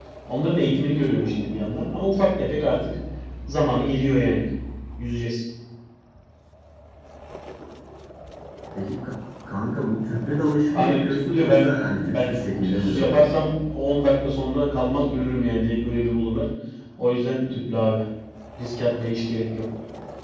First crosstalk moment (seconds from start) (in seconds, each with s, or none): 10.7 s